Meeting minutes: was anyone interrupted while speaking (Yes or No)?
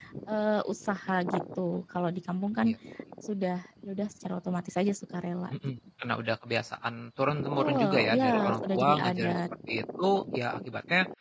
Yes